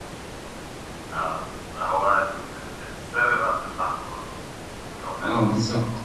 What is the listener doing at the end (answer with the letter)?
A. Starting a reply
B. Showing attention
A